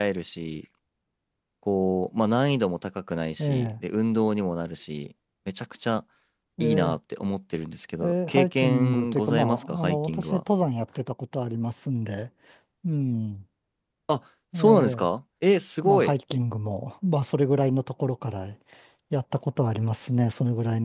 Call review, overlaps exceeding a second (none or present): present